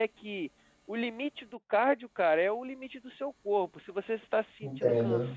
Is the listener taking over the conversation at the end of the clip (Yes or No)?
No